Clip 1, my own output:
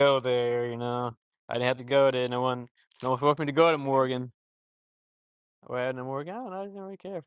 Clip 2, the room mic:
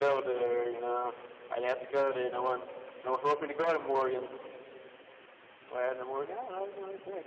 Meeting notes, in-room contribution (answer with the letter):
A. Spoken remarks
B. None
B